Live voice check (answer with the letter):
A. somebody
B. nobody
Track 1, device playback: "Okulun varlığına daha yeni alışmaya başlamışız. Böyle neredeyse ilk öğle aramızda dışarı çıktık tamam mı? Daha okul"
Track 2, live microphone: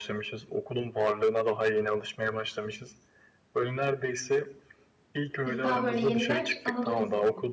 A